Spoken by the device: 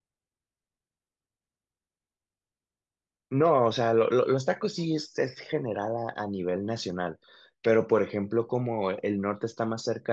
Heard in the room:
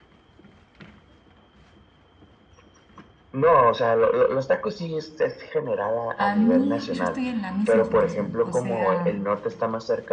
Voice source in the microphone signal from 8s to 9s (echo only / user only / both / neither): both